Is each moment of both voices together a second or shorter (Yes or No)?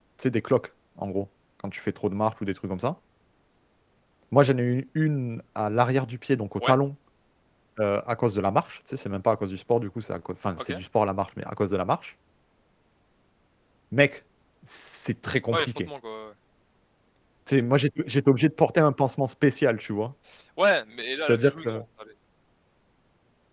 Yes